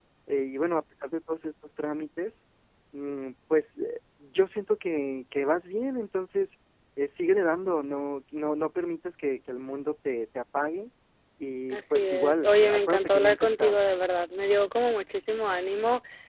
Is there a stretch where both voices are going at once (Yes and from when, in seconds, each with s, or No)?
Yes, from 11.7 s